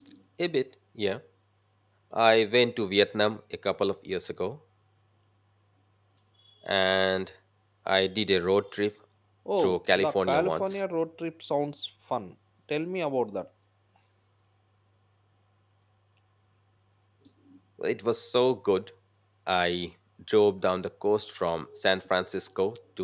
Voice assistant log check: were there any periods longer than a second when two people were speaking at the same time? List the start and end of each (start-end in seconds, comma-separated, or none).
9.6-10.8